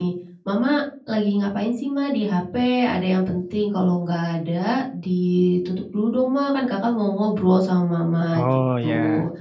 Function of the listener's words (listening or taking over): listening